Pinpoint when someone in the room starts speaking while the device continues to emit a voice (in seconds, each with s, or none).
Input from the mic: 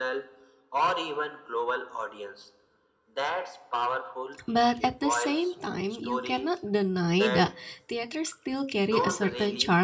4.5 s